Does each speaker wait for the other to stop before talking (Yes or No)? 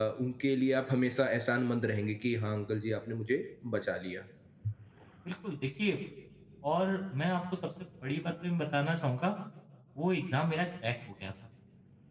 Yes